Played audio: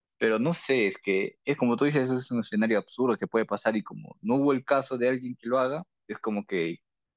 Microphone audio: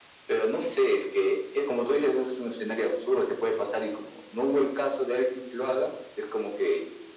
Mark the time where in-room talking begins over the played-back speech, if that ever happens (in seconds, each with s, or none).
none